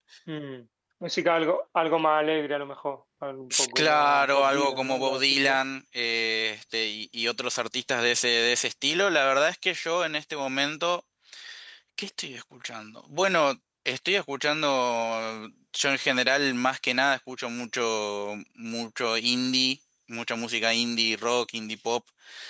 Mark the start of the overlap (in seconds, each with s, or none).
3.5 s